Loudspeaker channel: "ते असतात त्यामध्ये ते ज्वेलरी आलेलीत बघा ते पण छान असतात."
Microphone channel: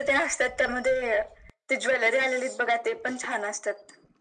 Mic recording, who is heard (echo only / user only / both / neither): echo only